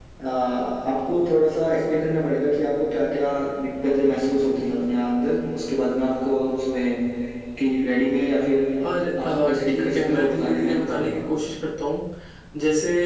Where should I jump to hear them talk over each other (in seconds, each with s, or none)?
9.2 s